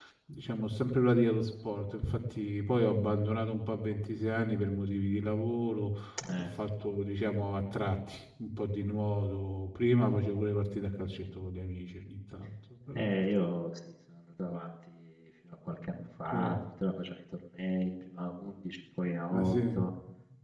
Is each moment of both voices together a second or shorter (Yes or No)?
Yes